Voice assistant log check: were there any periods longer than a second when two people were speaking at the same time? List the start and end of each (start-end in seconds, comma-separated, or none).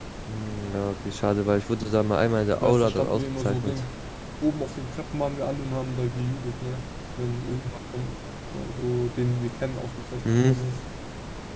2.6-3.8